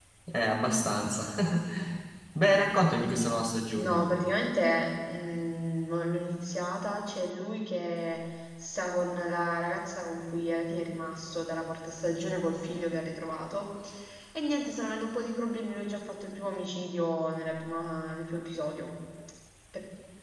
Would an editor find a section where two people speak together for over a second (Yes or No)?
No